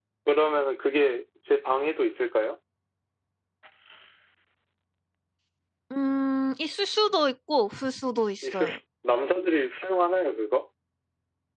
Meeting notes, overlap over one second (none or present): none